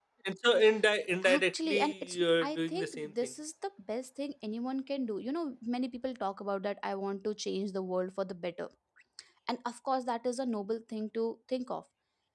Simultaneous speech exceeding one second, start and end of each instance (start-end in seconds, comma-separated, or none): 1.2-3.3